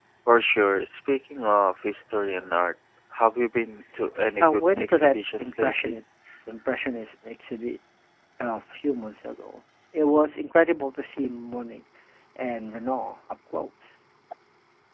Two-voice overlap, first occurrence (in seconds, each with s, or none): 4.4 s